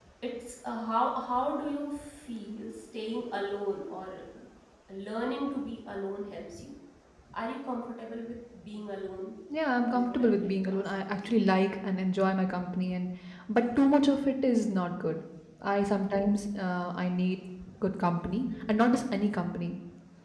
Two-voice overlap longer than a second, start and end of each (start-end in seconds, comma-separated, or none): 9.9-11.2